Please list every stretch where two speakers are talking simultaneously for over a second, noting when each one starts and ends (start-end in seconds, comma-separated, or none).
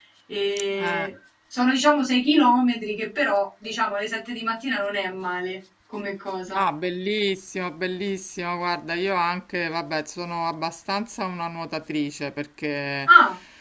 none